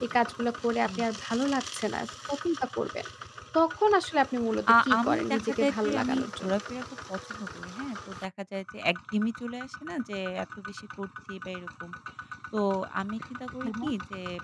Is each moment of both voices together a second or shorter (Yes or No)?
No